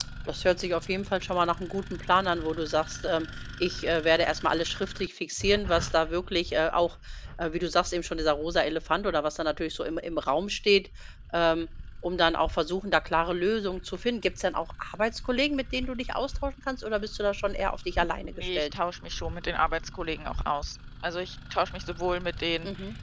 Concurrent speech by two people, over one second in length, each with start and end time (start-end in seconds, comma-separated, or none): none